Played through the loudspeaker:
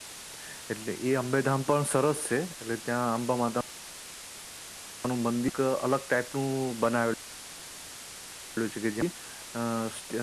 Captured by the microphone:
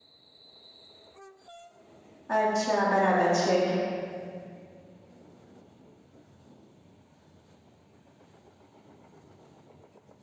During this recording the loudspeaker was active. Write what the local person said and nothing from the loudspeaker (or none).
અચ્છા બરાબર છે,